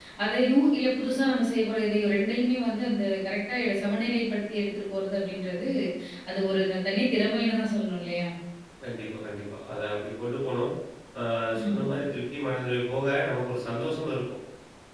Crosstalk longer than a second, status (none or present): none